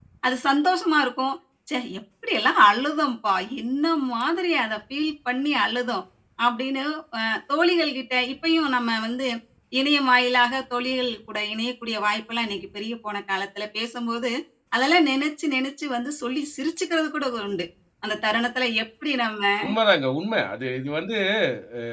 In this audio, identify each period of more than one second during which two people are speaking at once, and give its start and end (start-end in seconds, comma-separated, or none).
none